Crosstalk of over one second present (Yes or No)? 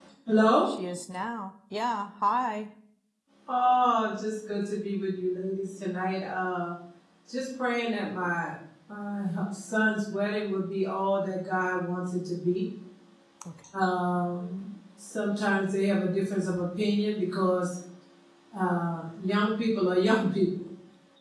No